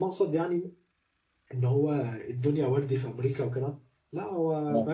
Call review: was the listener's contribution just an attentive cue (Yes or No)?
Yes